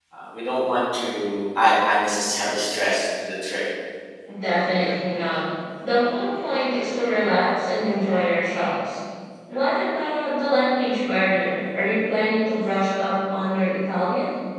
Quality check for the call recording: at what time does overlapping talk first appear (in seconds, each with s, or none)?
none